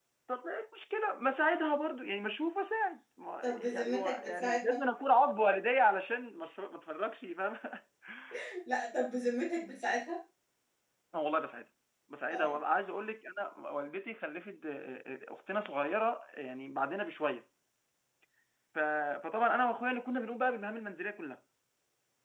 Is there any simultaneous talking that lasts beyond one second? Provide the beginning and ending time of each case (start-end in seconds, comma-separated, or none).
3.4-4.8